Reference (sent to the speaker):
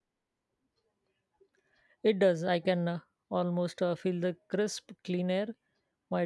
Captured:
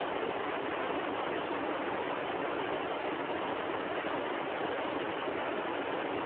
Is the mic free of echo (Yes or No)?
Yes